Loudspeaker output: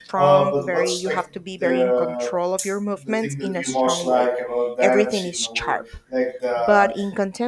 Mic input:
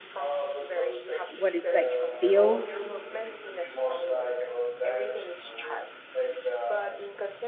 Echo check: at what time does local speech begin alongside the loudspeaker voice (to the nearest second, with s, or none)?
1 s